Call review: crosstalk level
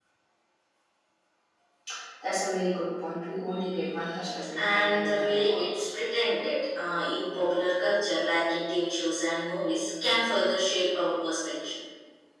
present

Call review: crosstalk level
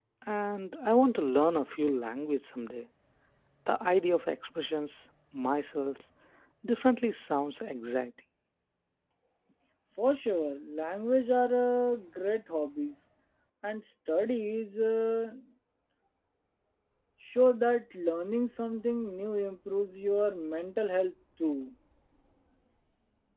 none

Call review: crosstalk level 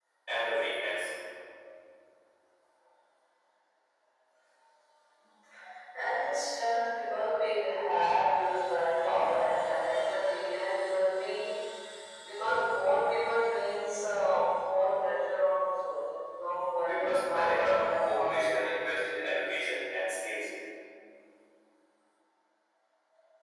present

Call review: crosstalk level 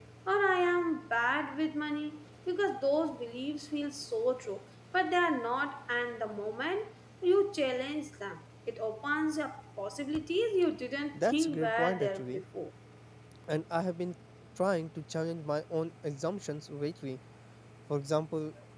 present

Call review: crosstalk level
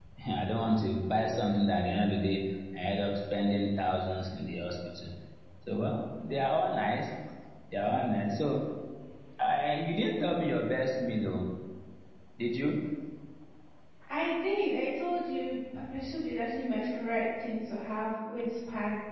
none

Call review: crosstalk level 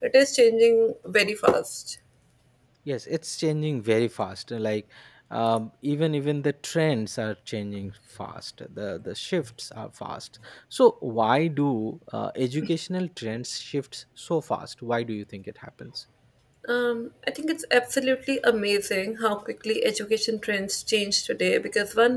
none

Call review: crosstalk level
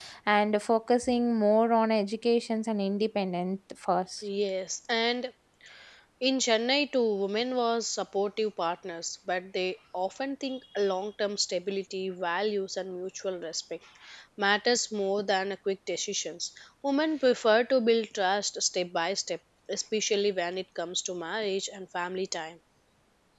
none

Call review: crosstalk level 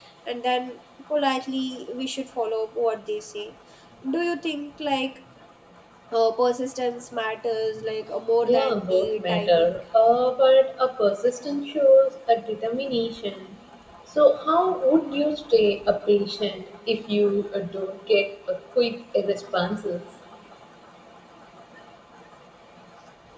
present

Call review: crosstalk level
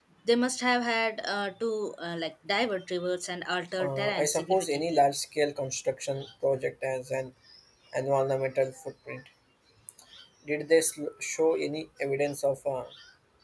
present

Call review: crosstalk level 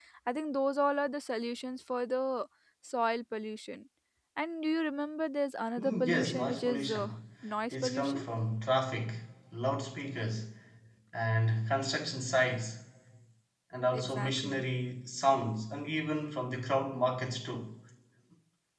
present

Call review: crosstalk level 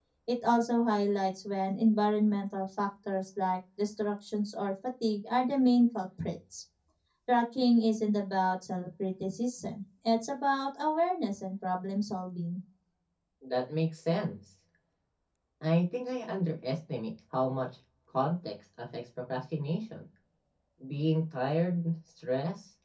none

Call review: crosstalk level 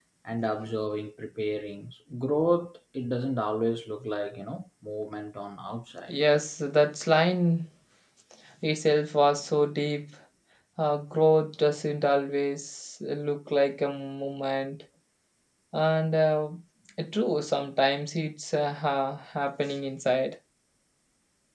none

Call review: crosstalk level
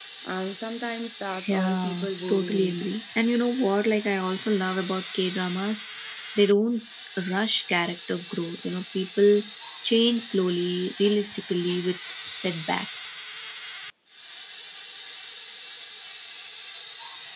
present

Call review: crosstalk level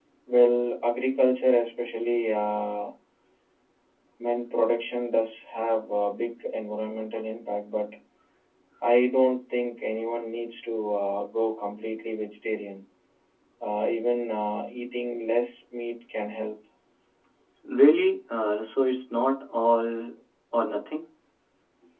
none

